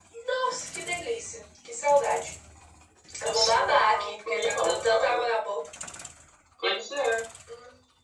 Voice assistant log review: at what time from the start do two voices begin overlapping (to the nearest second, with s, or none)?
3 s